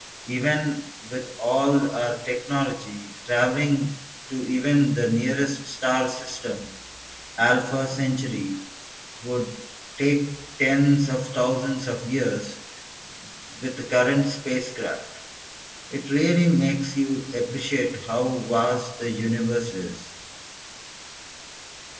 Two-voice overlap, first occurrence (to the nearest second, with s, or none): none